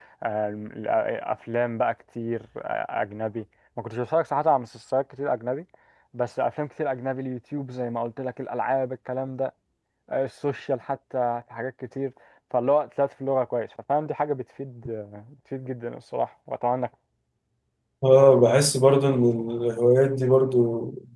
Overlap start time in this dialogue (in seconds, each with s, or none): none